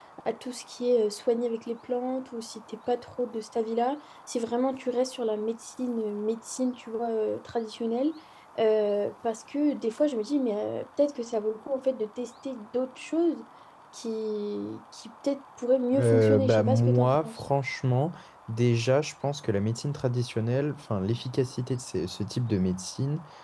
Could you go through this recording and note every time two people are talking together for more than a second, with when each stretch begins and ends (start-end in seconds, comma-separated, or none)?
15.9-17.4